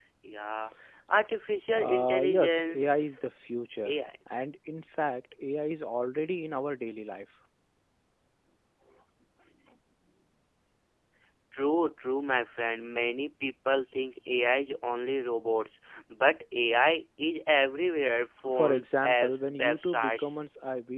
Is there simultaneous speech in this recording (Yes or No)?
Yes